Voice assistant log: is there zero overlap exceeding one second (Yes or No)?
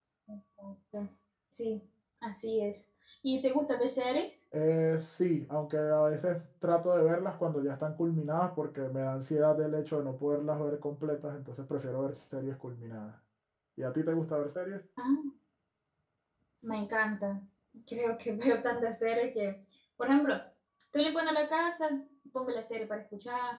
Yes